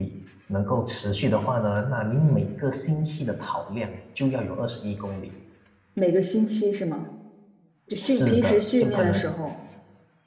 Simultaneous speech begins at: 8.0 s

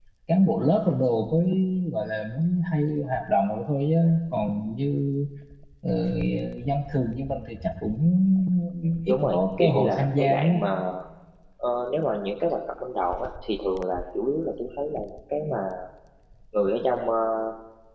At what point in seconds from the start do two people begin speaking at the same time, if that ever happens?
9.1 s

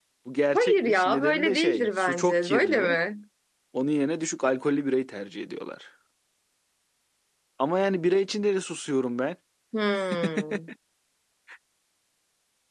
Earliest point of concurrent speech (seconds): 0.5 s

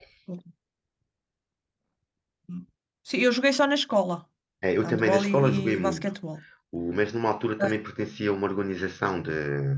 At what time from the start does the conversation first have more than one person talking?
4.8 s

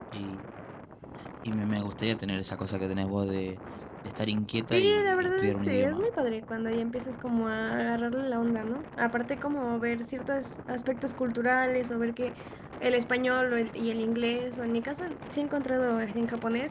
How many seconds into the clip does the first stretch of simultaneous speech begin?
4.7 s

